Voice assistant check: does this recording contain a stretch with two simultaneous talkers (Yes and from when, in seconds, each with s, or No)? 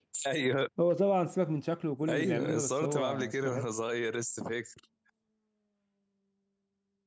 Yes, from 2.0 s